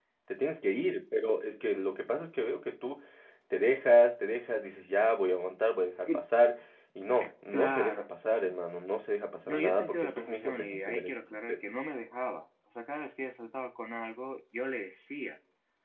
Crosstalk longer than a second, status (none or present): present